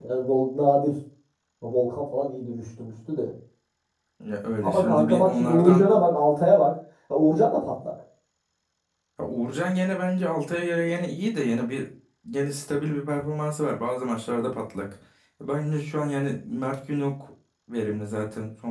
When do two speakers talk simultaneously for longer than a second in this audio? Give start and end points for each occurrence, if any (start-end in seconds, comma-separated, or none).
4.6-5.8